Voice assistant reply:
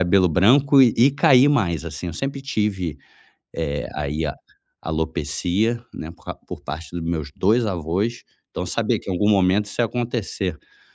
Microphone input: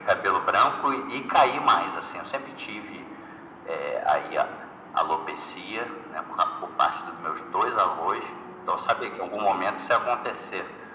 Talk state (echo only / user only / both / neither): echo only